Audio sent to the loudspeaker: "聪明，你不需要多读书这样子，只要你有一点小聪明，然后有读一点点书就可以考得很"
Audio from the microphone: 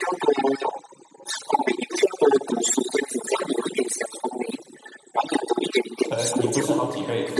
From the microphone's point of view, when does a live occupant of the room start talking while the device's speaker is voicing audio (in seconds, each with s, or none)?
6.1 s